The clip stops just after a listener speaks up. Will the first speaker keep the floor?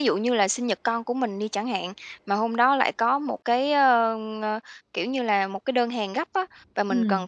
Yes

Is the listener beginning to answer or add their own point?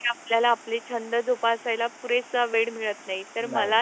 No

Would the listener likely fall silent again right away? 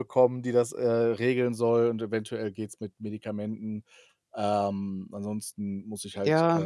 No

